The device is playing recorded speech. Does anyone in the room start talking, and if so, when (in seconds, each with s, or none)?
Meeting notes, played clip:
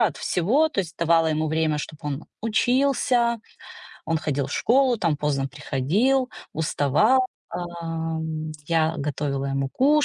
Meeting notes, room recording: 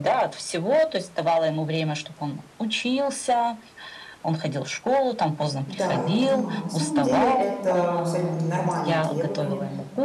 5.7 s